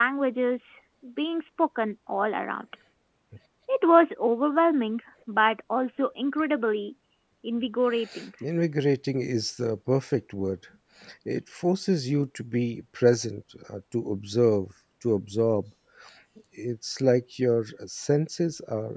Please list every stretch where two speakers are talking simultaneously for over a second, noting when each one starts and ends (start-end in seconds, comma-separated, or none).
none